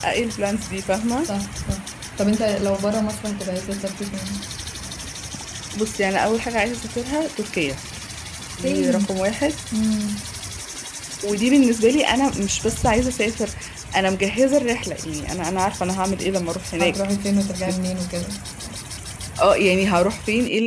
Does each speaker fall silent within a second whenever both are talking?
Yes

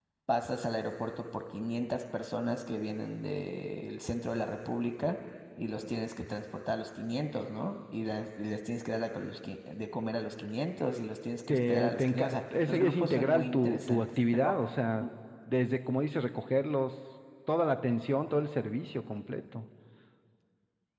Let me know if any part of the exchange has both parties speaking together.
Yes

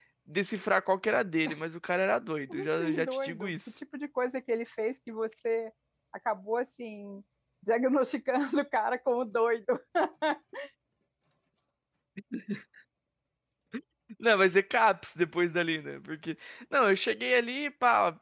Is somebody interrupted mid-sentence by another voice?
Yes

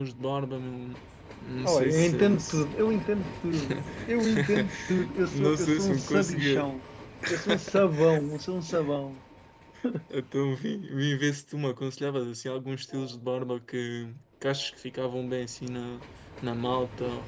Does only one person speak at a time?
No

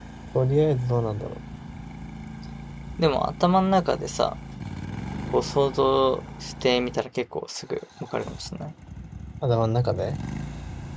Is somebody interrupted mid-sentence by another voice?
No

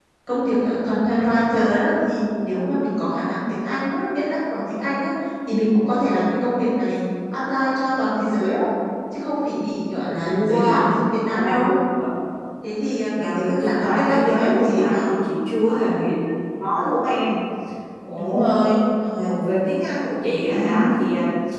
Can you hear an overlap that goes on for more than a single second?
Yes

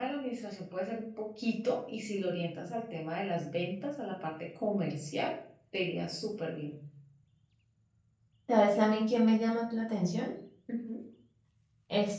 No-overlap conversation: Yes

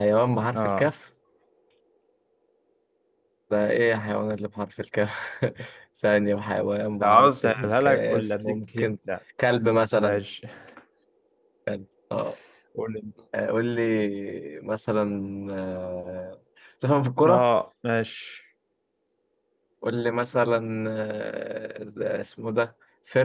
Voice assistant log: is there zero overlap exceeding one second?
No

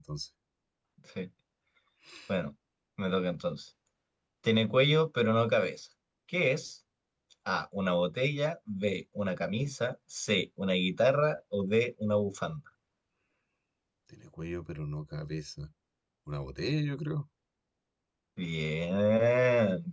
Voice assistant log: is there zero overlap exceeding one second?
Yes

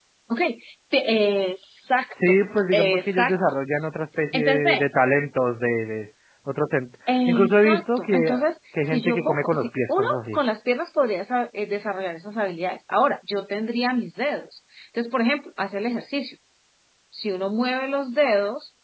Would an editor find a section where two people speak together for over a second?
Yes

